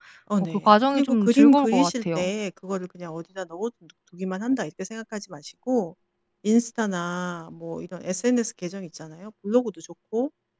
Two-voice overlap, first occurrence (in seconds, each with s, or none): 0.7 s